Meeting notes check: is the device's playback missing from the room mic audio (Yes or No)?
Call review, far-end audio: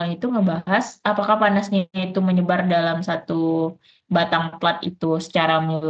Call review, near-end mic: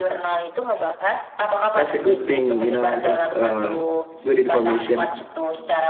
No